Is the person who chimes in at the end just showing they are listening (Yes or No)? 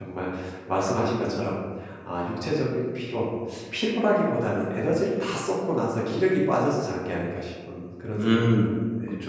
No